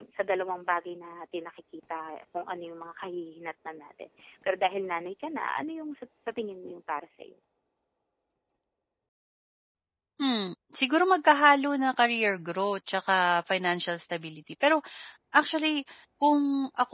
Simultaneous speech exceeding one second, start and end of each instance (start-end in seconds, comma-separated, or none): none